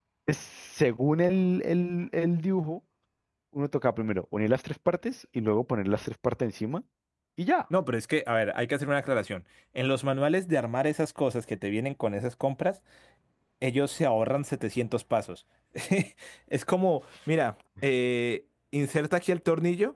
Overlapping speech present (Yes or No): No